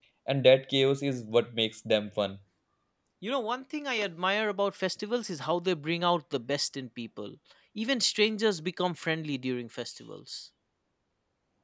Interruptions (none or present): none